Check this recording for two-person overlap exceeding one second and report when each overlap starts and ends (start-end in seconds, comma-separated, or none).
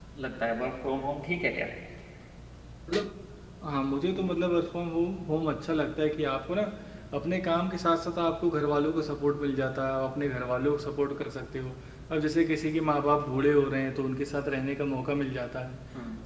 none